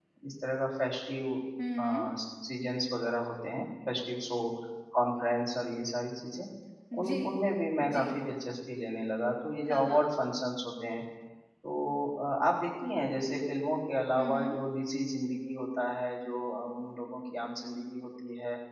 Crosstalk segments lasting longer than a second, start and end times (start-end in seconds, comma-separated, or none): none